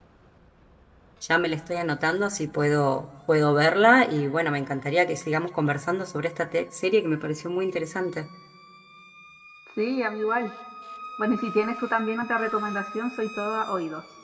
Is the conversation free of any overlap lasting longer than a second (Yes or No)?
Yes